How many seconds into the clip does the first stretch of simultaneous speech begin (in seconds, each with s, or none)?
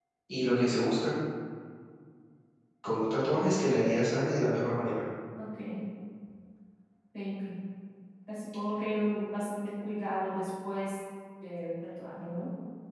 none